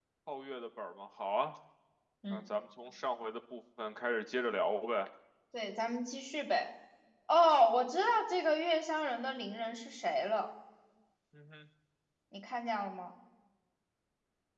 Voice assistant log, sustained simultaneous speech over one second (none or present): none